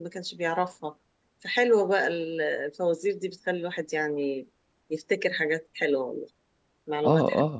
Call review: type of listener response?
taking over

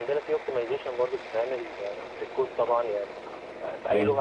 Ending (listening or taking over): listening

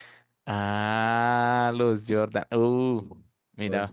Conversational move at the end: listening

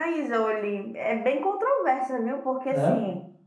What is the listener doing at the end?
listening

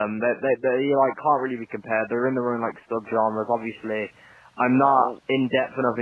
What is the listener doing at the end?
listening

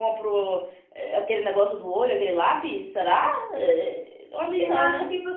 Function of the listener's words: taking over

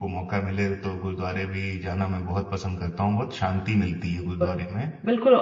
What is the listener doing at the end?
taking over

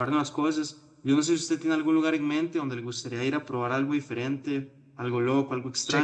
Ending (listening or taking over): taking over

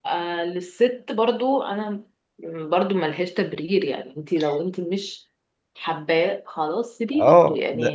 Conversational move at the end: taking over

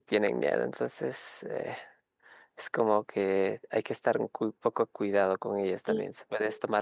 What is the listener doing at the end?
listening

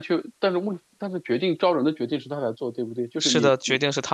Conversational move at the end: taking over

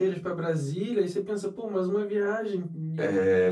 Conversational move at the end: taking over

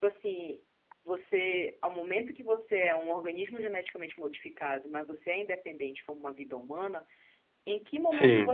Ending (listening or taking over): listening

